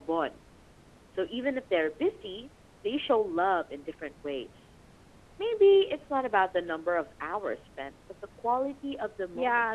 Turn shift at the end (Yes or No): Yes